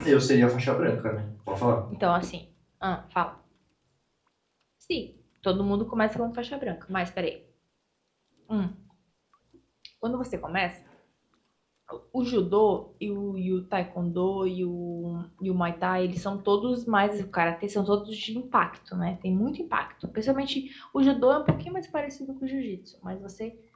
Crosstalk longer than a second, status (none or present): none